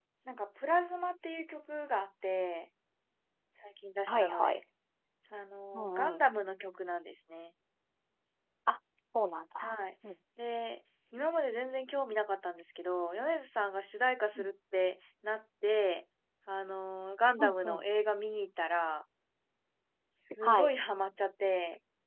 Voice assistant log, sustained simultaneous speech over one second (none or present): none